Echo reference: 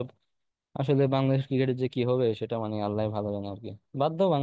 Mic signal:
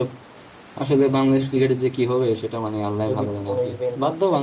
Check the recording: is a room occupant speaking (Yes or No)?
Yes